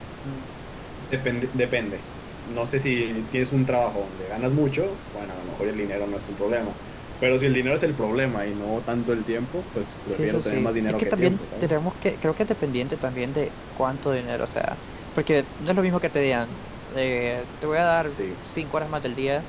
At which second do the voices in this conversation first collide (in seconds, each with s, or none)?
10.1 s